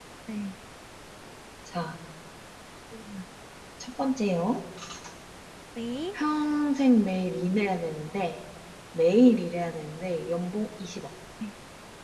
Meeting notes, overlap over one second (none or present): none